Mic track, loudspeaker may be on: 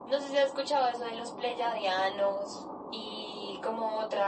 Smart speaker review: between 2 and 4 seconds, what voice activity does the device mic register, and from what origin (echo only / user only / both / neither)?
echo only